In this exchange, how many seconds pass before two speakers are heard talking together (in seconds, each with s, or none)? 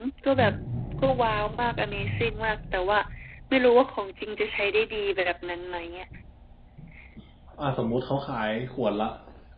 none